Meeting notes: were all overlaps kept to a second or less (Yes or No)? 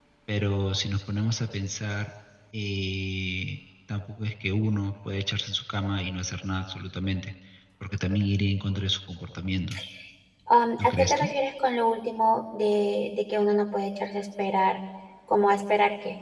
Yes